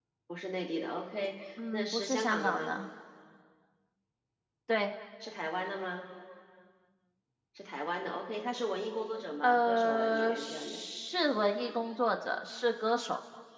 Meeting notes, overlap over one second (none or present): present